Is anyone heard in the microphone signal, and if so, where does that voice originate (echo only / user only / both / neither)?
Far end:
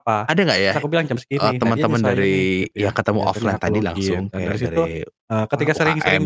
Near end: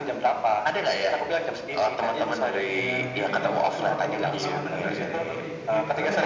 both